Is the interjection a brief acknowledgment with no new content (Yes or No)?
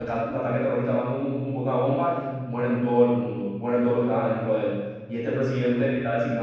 Yes